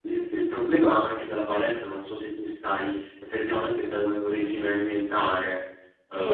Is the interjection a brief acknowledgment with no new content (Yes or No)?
No